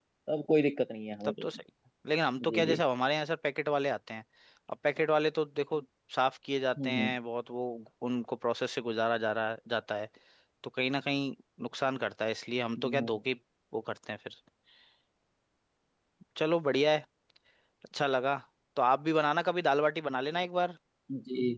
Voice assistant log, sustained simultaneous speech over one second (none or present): none